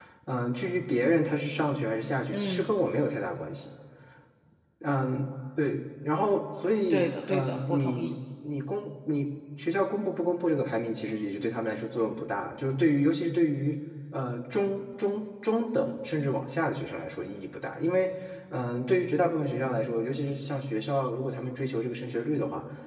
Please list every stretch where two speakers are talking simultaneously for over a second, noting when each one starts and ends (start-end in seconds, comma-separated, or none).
6.9-8.2